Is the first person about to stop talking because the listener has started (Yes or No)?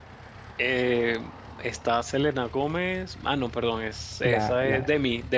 Yes